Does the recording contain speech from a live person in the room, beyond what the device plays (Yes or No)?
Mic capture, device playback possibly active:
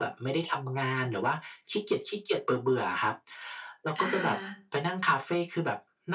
Yes